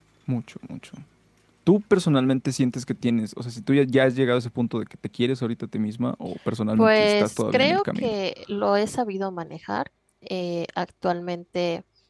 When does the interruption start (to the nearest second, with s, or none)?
7 s